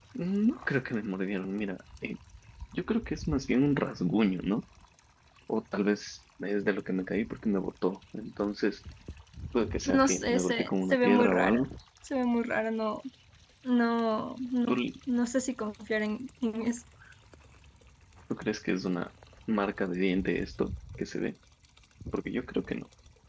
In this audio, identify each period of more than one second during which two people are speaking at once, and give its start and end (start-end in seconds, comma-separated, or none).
9.8-11.6